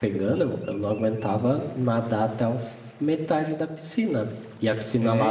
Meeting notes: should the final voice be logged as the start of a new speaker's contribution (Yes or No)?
No